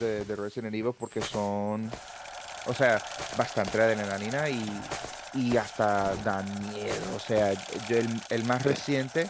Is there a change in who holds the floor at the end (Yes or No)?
No